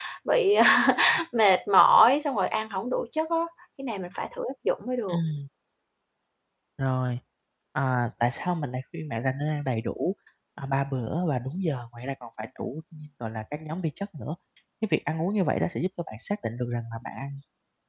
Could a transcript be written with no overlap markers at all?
Yes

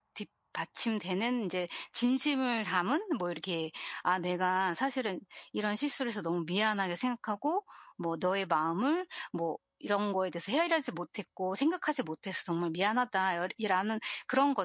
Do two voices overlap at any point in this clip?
No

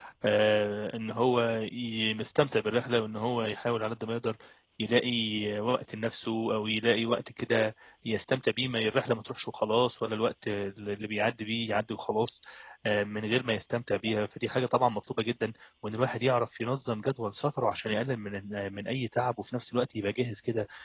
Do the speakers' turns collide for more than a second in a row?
No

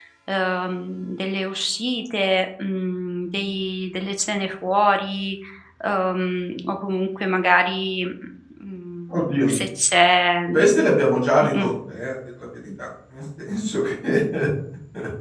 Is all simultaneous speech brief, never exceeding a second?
Yes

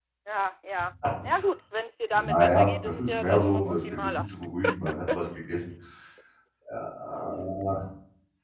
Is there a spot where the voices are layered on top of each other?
Yes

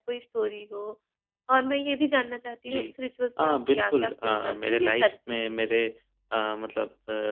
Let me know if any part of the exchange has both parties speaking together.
Yes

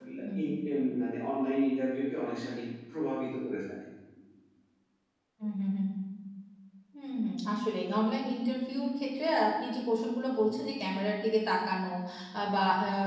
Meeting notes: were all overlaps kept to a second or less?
Yes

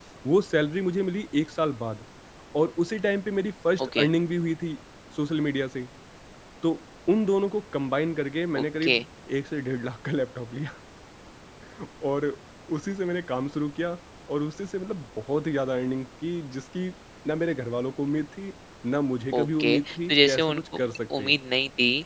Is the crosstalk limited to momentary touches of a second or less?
No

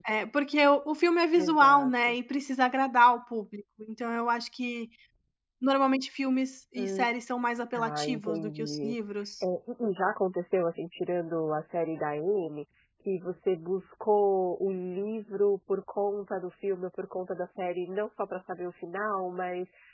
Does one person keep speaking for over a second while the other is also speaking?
Yes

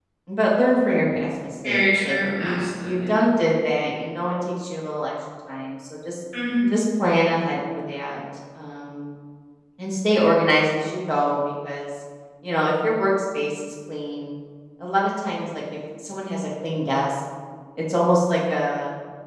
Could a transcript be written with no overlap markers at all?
No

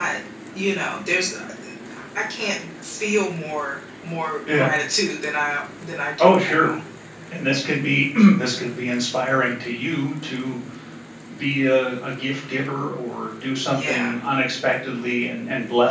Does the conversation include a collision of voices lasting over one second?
No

